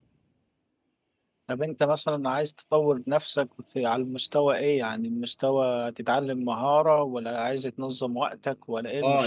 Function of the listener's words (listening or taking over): taking over